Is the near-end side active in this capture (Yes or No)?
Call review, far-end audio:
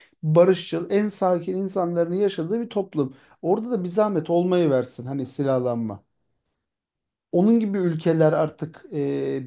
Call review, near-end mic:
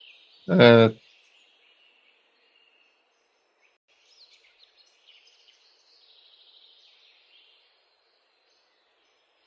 Yes